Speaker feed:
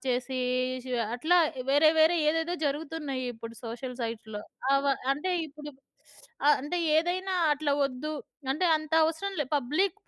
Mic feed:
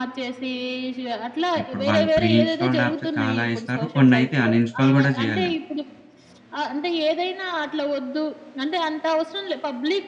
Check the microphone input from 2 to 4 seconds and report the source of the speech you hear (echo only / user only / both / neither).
both